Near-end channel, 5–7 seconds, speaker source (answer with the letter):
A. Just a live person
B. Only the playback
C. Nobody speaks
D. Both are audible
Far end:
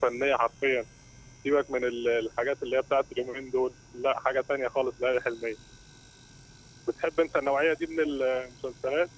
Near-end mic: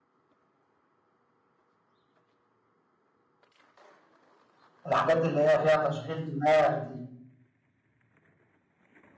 A